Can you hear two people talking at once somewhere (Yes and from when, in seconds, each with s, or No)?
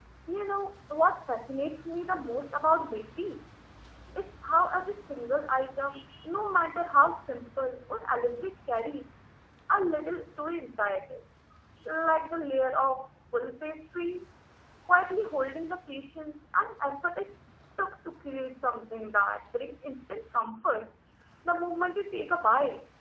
No